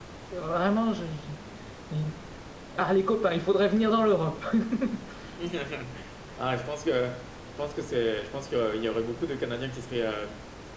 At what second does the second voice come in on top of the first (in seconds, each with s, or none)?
none